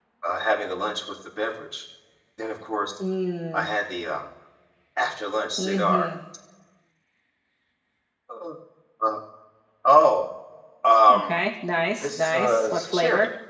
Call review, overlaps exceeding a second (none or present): present